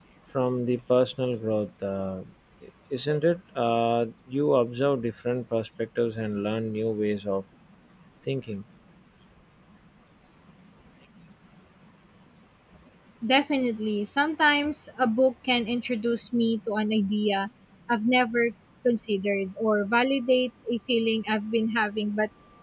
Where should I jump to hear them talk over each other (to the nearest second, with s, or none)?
none